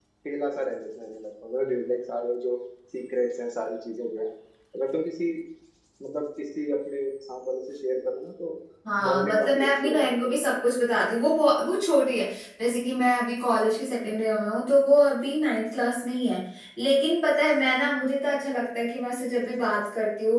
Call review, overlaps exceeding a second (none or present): present